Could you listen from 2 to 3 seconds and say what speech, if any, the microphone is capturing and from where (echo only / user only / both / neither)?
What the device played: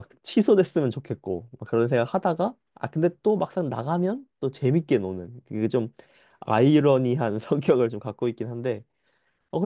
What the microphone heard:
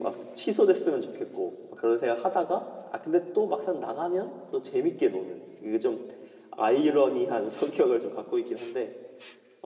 echo only